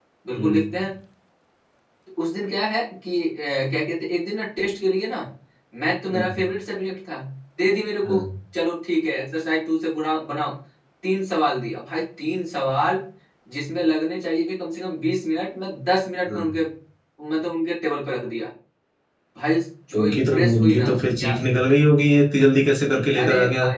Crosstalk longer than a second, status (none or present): present